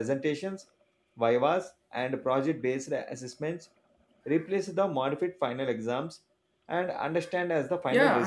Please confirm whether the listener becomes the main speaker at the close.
Yes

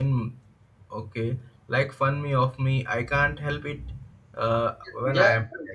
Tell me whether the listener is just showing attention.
No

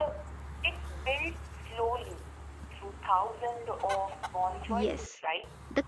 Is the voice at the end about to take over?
Yes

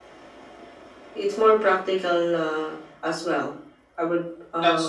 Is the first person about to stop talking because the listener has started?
Yes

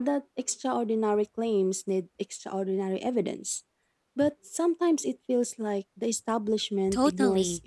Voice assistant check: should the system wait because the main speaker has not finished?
No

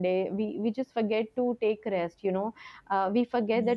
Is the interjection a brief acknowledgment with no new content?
Yes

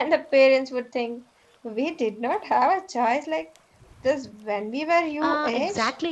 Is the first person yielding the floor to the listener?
Yes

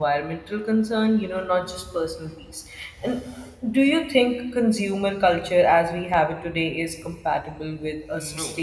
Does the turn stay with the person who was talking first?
No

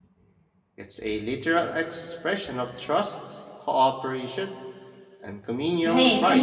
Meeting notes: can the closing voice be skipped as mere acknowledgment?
No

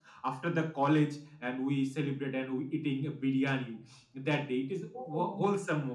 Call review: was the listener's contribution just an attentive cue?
Yes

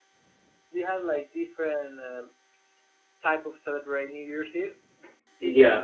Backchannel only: No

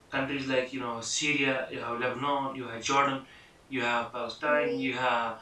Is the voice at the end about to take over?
No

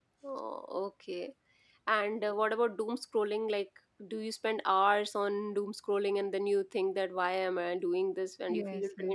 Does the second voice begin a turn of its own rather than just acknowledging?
Yes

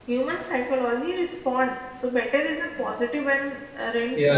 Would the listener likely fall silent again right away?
No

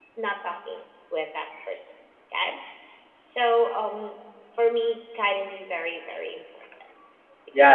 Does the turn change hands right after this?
Yes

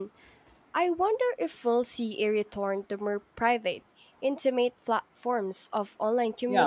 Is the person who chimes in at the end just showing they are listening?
No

